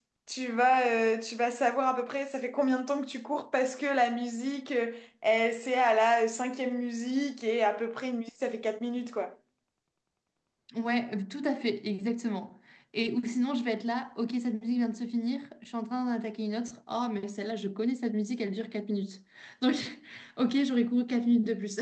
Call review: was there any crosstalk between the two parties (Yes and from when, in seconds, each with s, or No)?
No